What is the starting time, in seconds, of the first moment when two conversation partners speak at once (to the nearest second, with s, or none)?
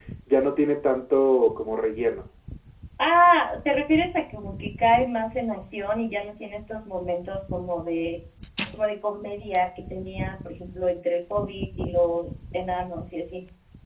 none